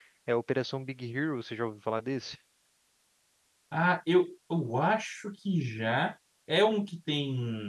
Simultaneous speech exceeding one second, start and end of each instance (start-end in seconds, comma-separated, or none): none